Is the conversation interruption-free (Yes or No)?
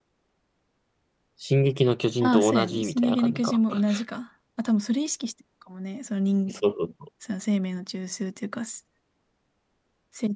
No